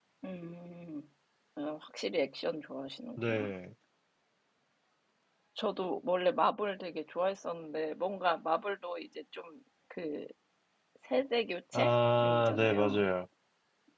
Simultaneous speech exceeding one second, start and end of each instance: 11.7-13.1

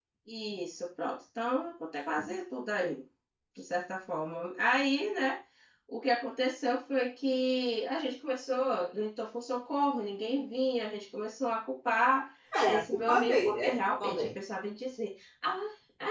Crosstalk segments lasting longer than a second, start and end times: 12.7-14.3

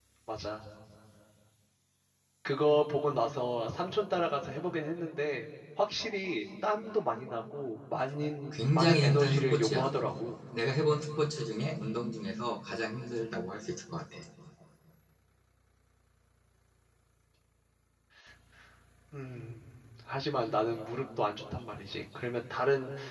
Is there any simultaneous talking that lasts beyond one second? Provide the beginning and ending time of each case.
8.5-9.9

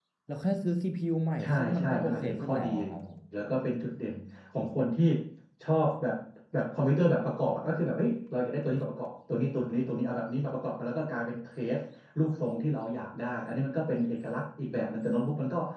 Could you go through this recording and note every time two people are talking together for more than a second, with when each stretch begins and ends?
1.4-2.7

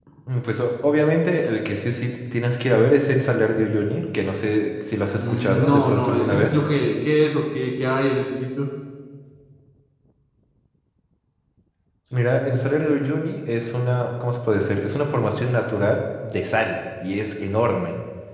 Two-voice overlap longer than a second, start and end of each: 5.2-6.6

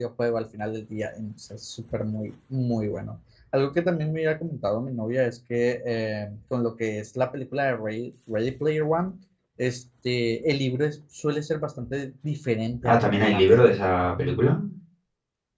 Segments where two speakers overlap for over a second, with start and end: 12.8-14.1

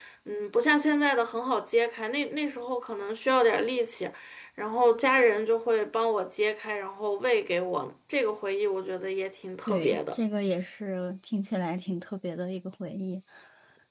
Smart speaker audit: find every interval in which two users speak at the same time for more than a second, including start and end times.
none

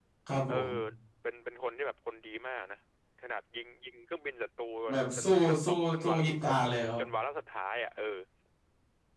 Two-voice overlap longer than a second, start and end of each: 4.9-6.6

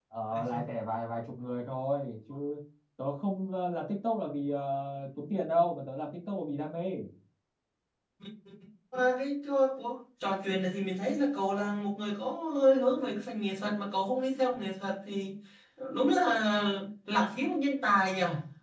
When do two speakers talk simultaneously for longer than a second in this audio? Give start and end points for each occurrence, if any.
none

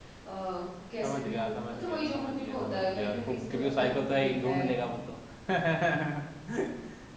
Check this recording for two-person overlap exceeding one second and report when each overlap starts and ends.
1.0-4.7

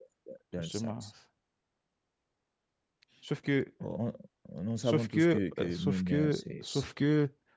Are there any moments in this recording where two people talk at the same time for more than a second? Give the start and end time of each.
4.8-6.6

